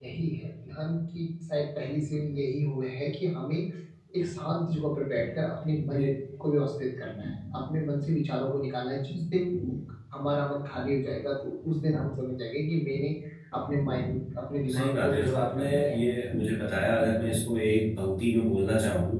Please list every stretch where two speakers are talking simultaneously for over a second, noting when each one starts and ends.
14.7-16.0

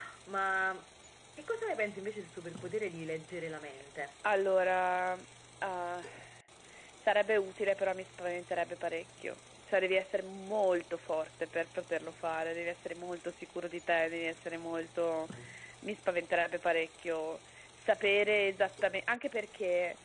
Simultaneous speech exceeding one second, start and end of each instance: none

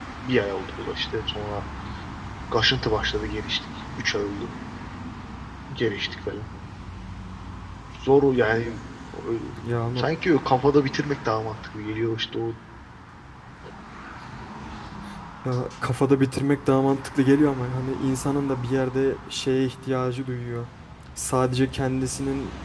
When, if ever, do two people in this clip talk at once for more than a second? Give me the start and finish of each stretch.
none

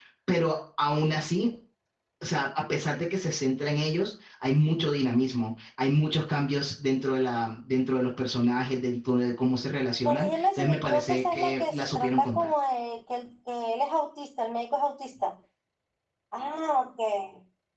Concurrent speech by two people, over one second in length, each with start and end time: 10.1-12.5

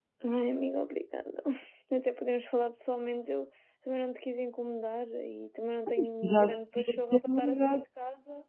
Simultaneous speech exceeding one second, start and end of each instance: 6.2-7.8

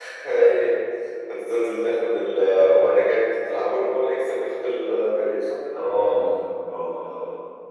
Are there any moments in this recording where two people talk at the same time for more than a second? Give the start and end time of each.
none

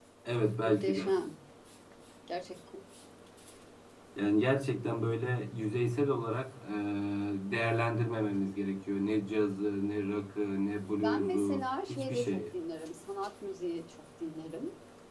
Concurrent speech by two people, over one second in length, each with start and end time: 11.0-12.4

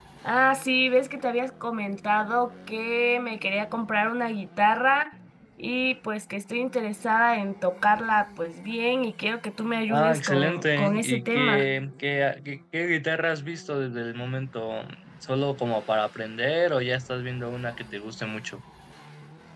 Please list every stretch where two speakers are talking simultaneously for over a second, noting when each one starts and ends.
9.9-11.7

